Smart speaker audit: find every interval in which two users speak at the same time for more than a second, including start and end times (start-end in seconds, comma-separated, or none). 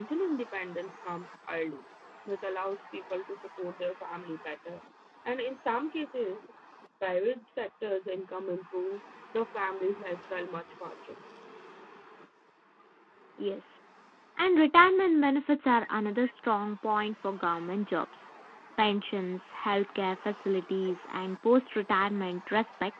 none